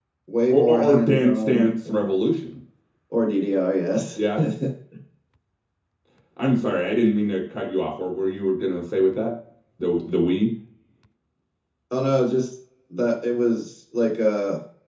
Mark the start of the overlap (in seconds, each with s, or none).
0.5 s